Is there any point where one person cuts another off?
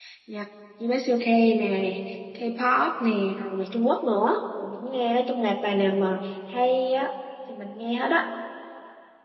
No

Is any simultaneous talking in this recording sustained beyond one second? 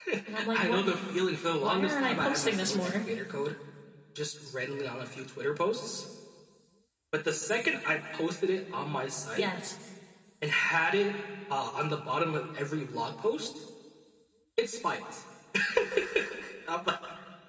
Yes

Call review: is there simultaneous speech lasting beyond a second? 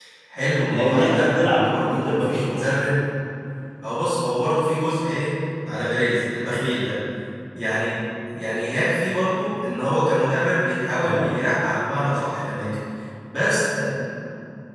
Yes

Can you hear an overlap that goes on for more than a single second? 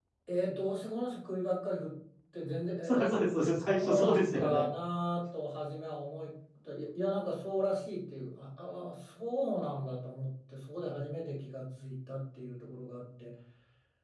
Yes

